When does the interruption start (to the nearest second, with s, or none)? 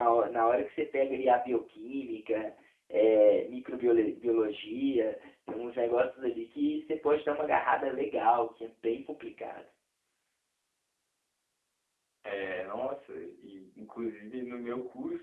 none